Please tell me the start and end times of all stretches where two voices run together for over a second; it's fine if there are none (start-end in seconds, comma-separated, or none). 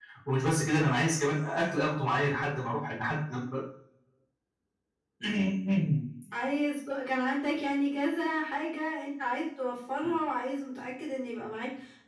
none